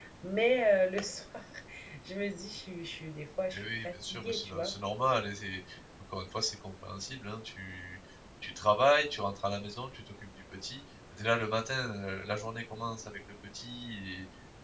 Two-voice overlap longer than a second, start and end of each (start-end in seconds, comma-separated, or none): 3.5-4.7